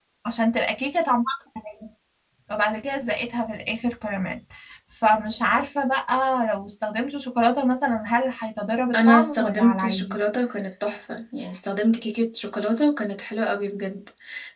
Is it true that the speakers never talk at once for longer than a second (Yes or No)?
No